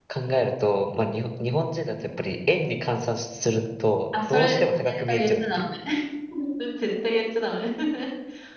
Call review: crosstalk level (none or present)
present